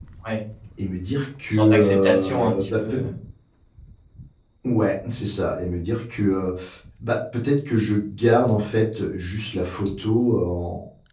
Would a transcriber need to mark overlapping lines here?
Yes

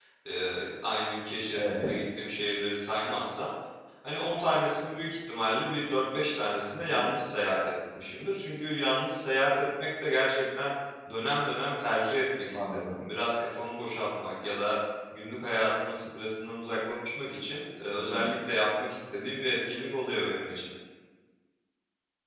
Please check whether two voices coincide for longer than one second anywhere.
No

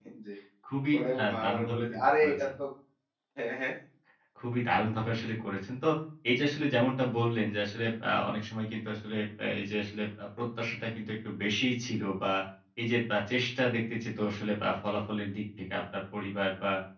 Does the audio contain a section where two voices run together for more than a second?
Yes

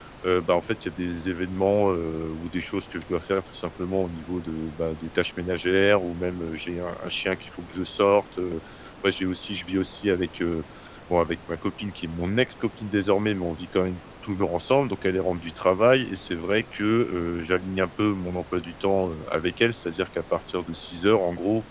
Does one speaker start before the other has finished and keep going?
No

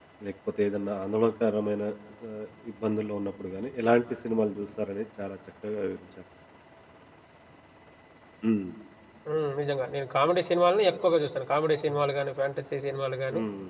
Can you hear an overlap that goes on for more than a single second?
No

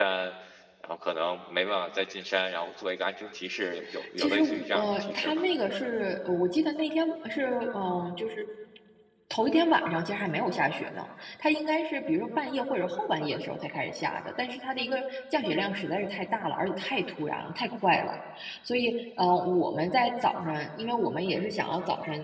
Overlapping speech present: Yes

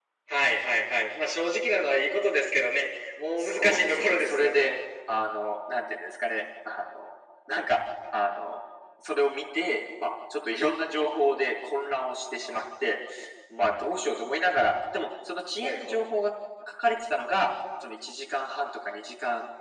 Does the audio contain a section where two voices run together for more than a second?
Yes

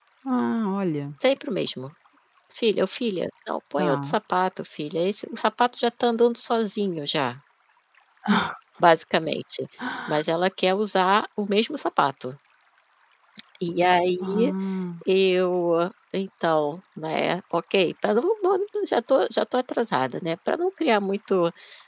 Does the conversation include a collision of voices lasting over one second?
No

